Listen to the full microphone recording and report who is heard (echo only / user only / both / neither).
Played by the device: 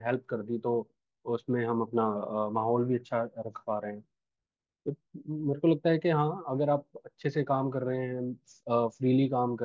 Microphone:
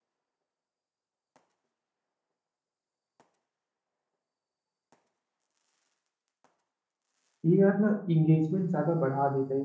user only